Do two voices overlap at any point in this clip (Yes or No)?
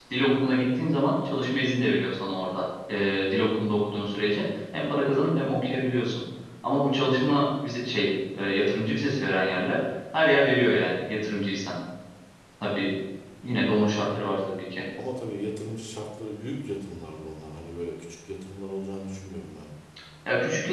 No